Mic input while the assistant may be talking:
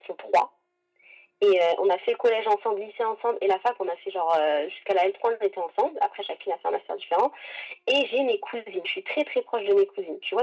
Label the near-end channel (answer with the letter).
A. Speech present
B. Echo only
B